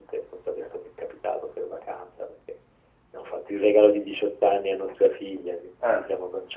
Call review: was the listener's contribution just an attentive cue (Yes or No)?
Yes